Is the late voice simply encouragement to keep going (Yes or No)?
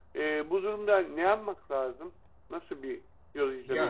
No